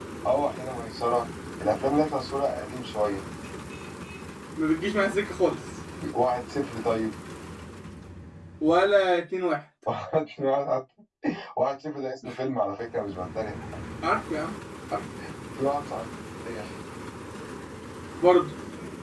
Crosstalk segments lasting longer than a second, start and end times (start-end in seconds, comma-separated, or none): none